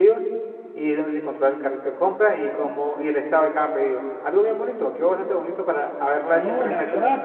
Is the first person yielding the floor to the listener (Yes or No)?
Yes